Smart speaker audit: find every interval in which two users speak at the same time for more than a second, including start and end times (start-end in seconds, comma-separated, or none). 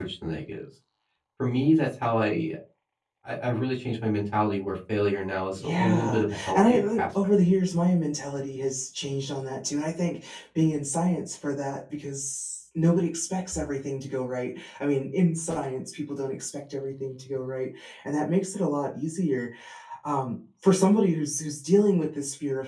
5.6-7.0